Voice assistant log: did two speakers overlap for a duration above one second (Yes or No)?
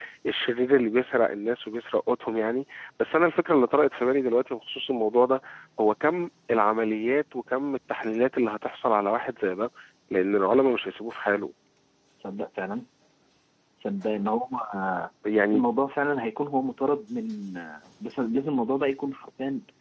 No